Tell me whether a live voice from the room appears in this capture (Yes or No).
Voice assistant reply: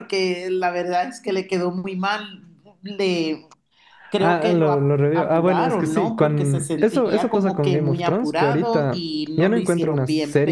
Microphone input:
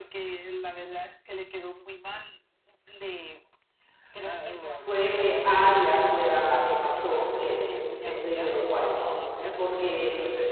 Yes